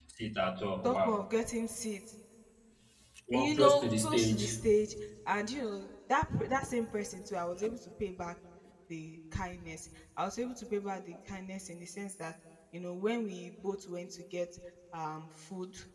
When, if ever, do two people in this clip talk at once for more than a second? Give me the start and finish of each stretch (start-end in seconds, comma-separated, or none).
3.3-4.6